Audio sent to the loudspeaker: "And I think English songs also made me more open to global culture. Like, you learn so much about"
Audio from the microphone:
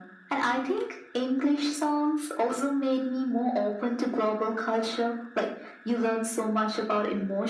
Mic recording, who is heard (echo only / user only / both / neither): echo only